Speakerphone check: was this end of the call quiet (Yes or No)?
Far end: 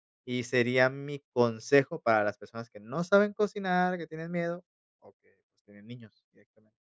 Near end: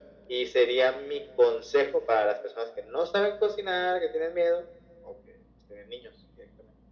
Yes